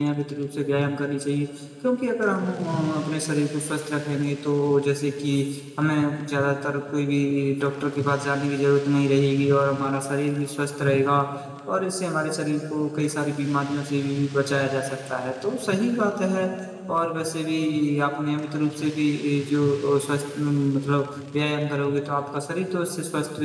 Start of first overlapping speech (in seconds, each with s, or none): none